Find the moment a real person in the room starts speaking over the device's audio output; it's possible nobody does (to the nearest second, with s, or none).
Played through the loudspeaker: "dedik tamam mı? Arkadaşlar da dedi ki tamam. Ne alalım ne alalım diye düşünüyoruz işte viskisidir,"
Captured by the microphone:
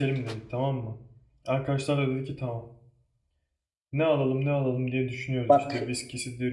5 s